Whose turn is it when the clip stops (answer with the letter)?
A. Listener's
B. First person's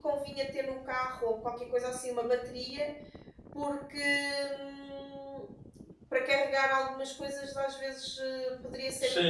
A